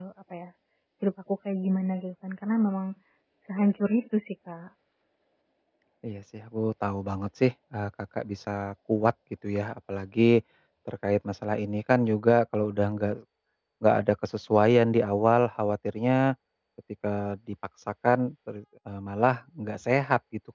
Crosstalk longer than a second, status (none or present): none